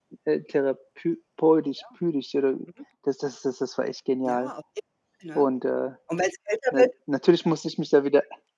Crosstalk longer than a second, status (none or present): none